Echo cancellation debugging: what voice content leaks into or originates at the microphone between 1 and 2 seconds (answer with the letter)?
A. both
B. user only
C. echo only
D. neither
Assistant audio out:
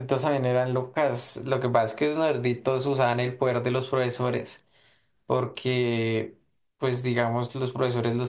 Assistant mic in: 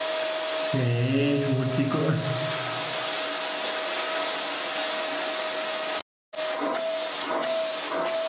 B